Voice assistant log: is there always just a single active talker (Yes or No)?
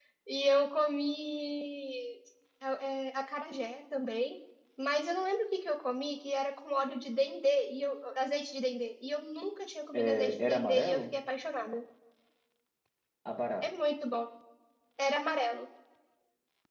No